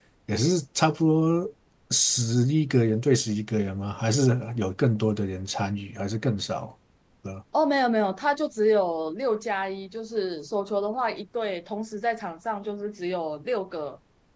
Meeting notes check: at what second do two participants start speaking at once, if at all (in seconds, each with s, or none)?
none